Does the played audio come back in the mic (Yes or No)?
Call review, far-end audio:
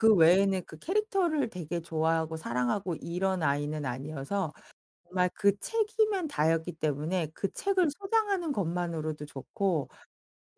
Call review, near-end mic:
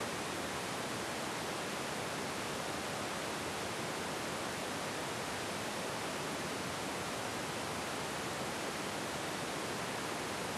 No